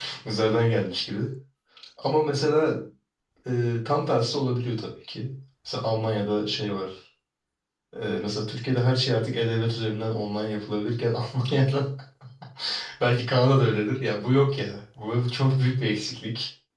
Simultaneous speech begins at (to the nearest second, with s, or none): none